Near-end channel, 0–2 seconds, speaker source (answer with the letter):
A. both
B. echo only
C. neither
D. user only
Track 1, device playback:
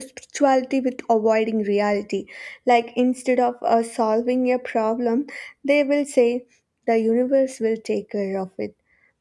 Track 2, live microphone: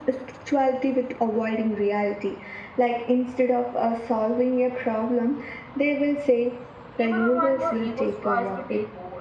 B